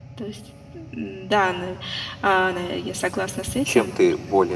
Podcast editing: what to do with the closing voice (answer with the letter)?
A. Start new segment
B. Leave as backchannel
A